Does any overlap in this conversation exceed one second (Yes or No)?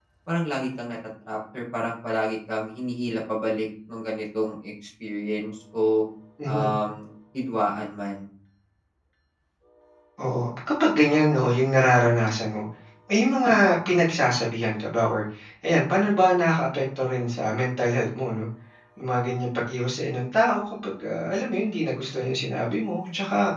No